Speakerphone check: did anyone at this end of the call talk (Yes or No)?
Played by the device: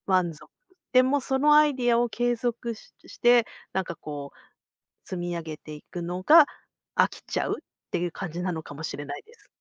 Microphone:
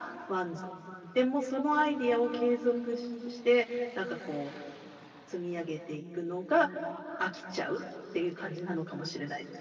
No